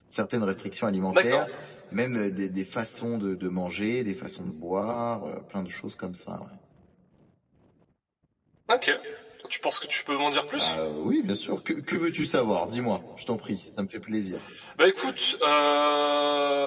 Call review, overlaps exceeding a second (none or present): none